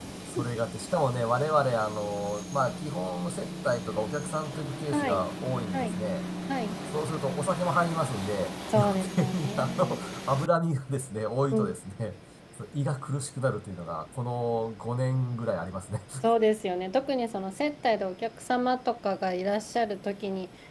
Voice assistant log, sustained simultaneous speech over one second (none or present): present